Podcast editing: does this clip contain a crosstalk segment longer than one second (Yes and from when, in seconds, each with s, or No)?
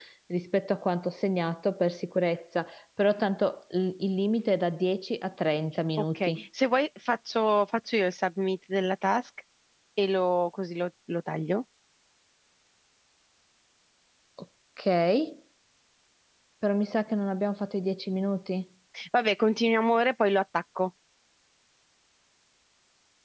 No